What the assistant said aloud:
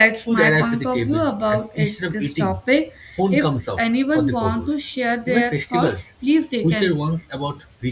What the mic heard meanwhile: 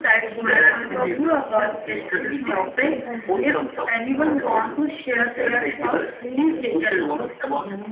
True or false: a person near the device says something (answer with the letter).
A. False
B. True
B